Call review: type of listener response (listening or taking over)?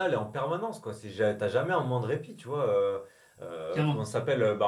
listening